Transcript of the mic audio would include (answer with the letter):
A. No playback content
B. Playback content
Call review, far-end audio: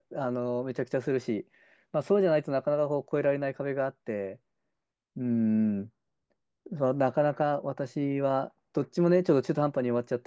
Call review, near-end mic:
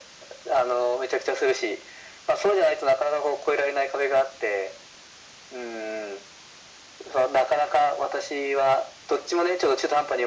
B